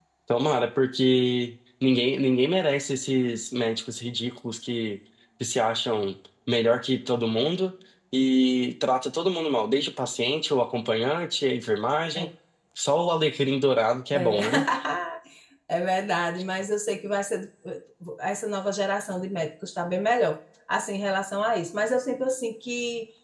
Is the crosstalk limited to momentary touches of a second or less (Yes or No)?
Yes